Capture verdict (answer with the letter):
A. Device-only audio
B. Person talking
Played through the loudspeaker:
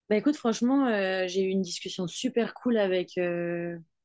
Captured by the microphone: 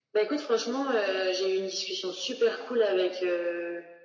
A